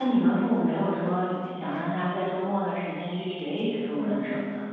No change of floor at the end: No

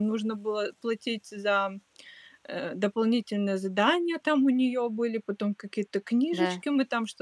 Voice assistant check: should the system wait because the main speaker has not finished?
Yes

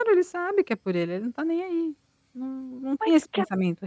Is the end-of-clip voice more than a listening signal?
No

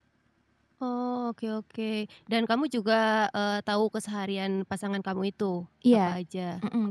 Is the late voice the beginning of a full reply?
Yes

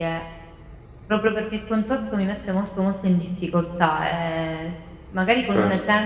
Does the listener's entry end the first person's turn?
No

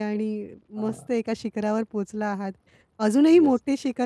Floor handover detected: No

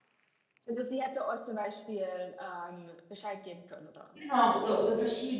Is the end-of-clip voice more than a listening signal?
Yes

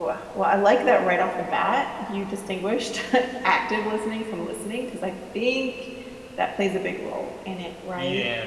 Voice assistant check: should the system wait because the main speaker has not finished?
No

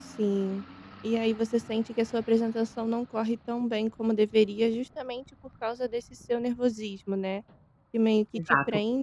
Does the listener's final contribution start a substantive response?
No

